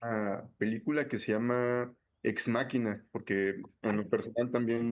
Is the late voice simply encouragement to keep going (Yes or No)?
Yes